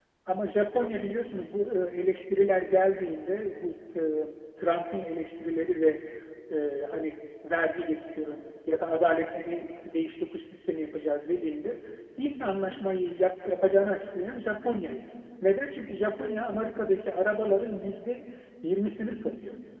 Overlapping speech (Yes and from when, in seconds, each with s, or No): No